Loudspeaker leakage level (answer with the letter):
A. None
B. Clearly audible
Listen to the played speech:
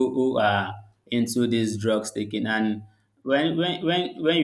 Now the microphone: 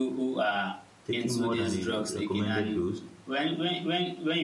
B